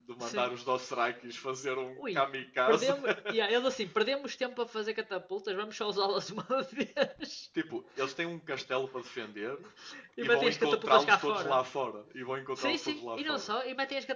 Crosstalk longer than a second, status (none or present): present